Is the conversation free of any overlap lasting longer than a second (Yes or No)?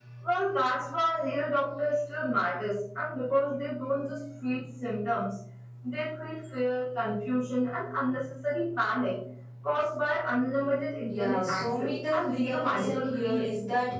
No